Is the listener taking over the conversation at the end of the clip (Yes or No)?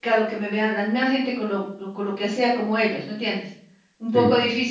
No